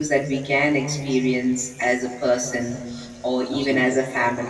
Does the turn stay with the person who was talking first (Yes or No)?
Yes